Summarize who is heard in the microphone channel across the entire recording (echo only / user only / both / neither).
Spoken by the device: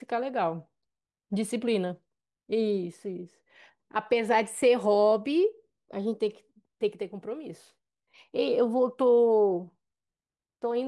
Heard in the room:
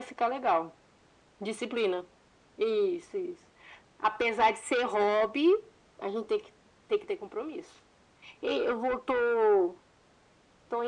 echo only